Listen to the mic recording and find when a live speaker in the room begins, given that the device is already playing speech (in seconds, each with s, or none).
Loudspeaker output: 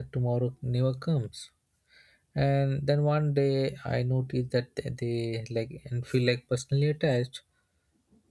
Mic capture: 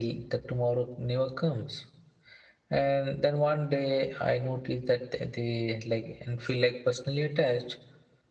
none